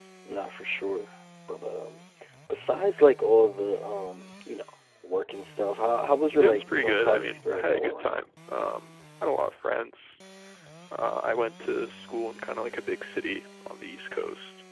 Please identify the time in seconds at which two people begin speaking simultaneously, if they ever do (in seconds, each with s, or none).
6.4 s